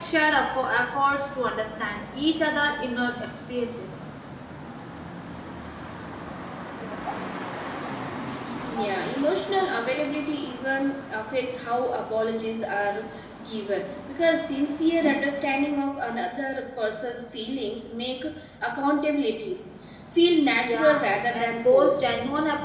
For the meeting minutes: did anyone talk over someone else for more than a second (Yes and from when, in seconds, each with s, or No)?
Yes, from 20.6 s